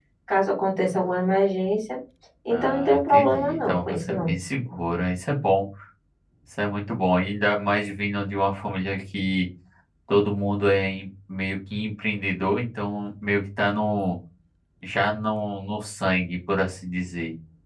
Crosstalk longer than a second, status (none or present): present